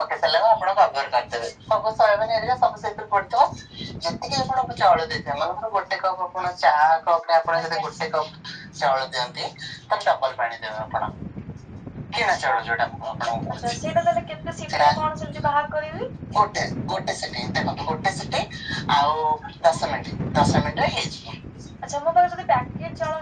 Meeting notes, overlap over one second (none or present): none